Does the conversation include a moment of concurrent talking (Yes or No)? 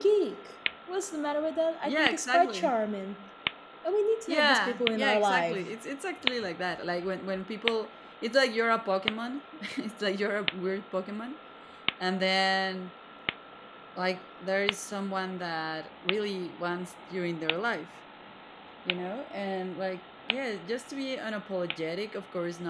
Yes